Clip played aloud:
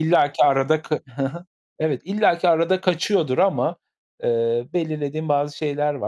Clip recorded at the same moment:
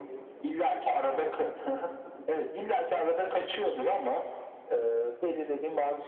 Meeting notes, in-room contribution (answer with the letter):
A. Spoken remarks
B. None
B